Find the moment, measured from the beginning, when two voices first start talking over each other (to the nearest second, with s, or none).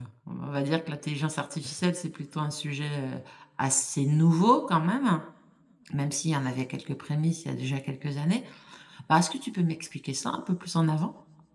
none